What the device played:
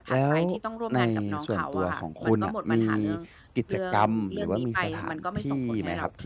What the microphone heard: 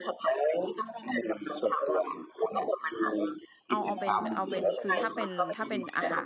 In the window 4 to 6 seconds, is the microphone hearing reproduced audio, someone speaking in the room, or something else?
both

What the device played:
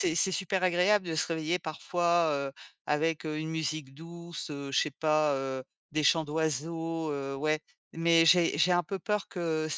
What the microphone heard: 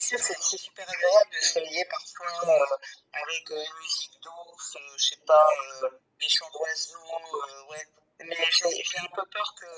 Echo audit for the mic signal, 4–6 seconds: echo only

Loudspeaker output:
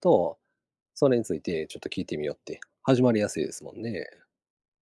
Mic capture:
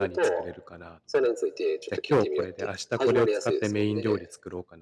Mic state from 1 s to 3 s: both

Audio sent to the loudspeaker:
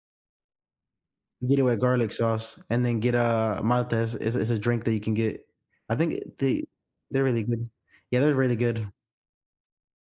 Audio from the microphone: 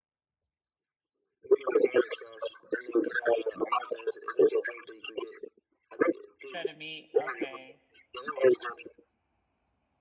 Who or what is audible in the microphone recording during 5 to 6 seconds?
echo only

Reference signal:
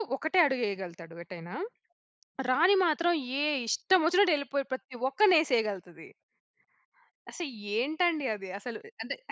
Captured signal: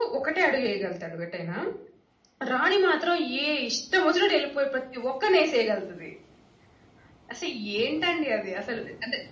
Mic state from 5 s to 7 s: echo only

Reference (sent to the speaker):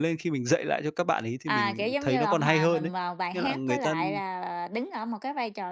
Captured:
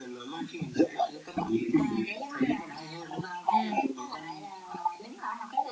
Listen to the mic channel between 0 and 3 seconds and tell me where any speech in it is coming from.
echo only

